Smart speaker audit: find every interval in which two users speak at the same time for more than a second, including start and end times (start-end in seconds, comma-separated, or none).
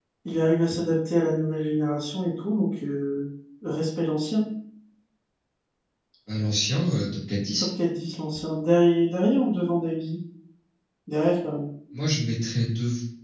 none